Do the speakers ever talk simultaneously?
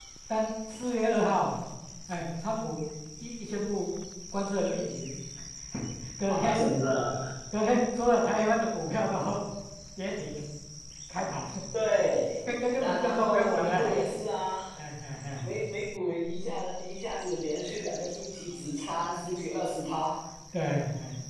Yes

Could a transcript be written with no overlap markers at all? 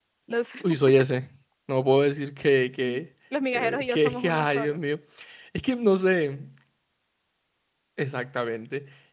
No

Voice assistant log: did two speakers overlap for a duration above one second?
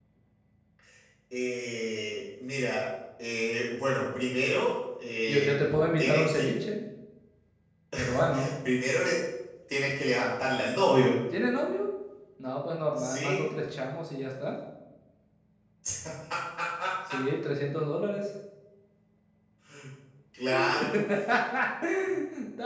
Yes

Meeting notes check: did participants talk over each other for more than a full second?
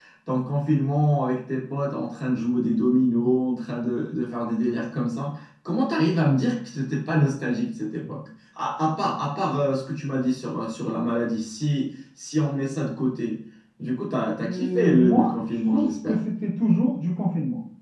Yes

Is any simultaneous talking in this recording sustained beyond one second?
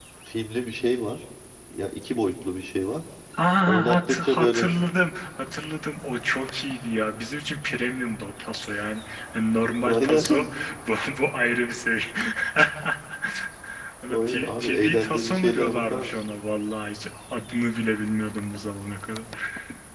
Yes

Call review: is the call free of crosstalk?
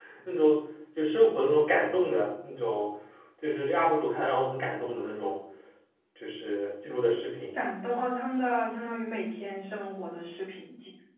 Yes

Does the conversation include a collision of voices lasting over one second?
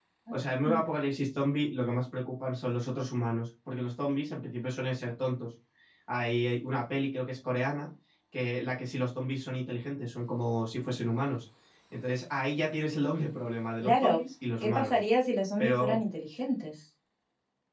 No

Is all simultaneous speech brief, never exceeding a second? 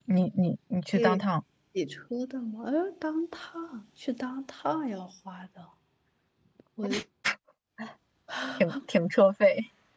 Yes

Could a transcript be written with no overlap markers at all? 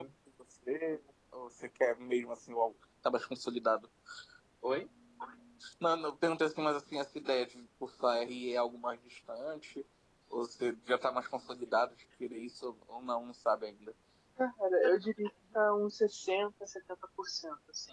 Yes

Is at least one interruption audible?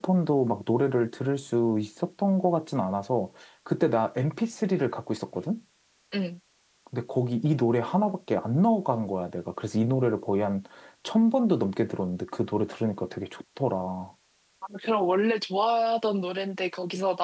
No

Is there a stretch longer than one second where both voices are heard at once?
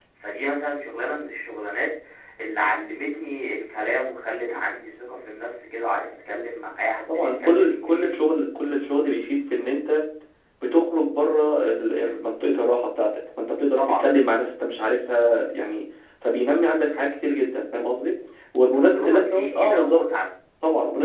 Yes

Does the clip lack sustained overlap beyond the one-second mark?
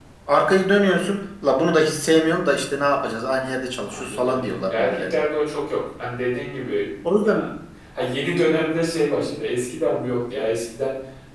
No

